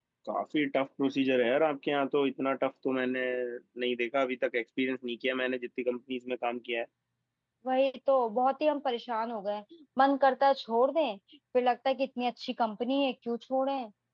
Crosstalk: none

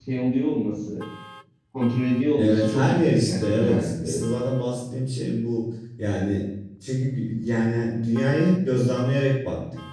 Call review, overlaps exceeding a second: present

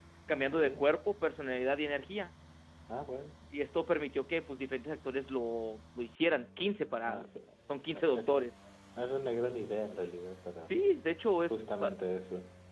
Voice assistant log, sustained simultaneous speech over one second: none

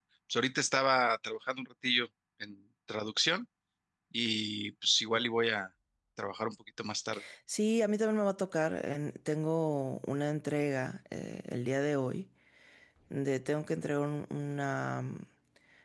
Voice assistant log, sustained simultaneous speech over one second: none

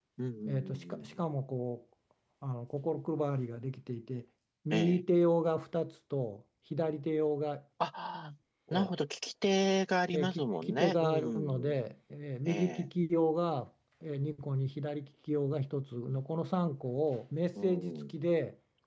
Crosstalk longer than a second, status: present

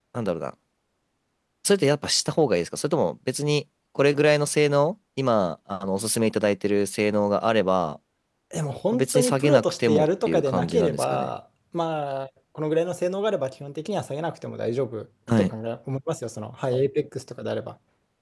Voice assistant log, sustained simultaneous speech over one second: present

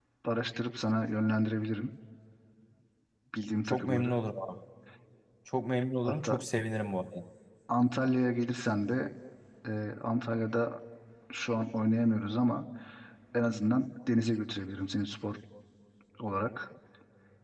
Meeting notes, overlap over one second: none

